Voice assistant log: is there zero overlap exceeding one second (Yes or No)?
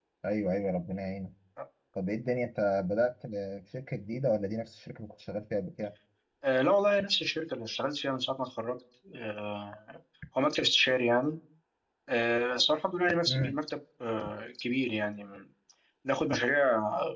Yes